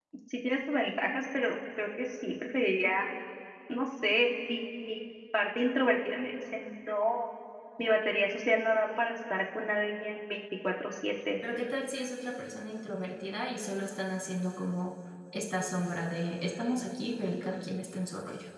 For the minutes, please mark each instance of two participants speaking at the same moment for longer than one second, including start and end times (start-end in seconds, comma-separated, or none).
none